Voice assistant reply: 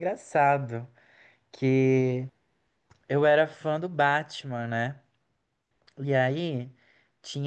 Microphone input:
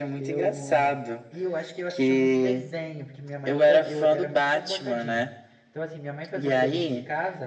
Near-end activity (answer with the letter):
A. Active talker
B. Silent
A